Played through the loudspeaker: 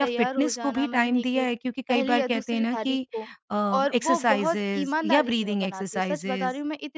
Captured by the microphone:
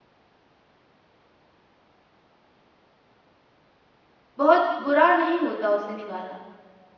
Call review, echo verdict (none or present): none